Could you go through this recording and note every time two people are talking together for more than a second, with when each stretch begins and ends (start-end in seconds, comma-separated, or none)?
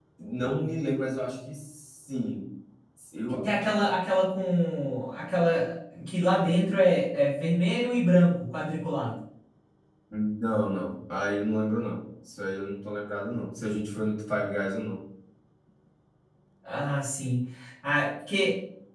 none